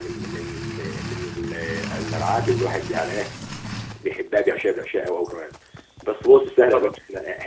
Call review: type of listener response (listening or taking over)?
listening